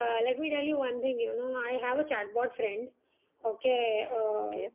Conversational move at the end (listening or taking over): listening